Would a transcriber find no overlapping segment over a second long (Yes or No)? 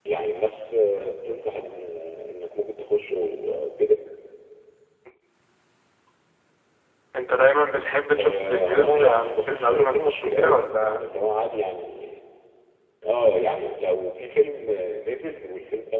No